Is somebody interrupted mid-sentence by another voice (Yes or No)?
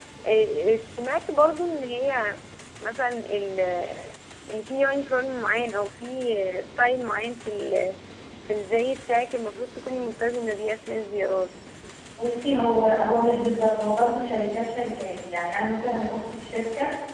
No